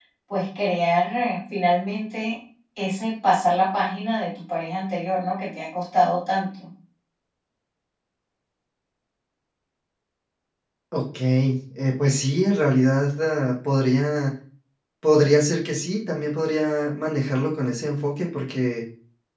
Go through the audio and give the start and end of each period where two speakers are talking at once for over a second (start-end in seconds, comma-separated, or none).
none